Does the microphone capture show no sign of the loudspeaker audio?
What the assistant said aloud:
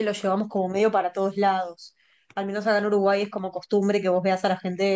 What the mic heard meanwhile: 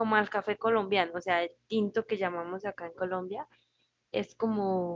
Yes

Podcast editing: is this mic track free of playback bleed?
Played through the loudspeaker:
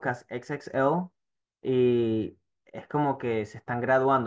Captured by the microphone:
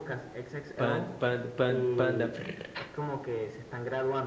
No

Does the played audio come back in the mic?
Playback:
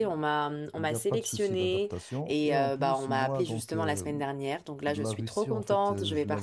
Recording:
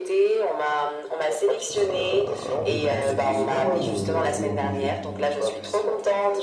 Yes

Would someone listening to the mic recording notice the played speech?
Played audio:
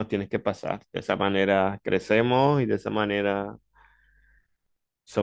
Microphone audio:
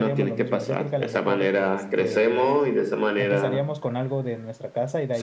Yes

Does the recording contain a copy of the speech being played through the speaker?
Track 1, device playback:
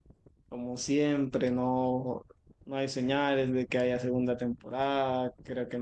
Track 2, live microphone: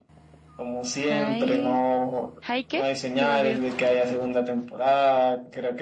Yes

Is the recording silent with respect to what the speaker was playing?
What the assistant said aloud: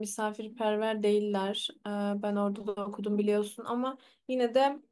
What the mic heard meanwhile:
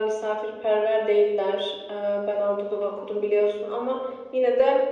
No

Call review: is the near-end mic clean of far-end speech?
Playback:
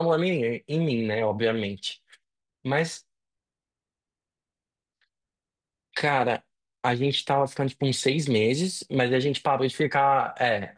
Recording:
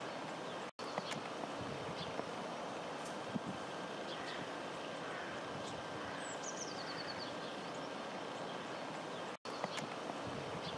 Yes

